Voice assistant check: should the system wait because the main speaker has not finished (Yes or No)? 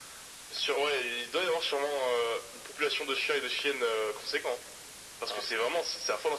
Yes